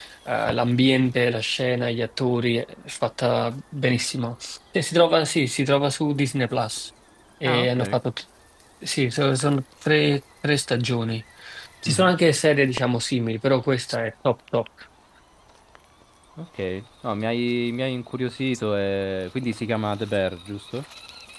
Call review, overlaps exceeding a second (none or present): none